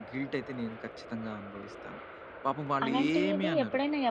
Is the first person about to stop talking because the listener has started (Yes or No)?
Yes